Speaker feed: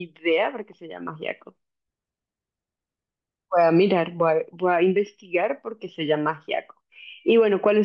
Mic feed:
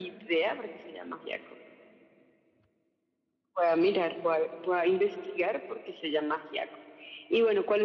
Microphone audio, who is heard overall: echo only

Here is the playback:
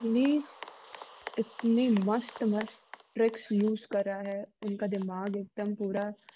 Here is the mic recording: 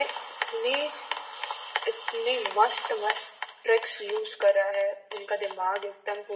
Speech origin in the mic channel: echo only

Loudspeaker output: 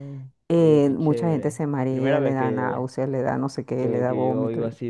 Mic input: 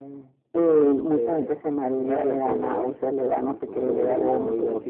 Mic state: both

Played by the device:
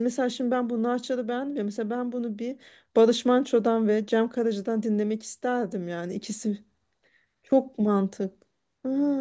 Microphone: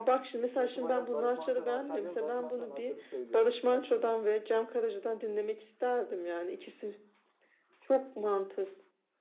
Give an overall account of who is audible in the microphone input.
both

